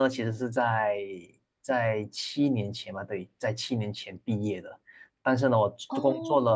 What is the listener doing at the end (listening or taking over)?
listening